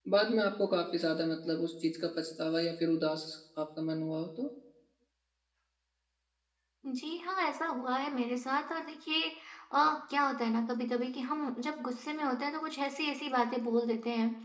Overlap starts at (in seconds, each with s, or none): none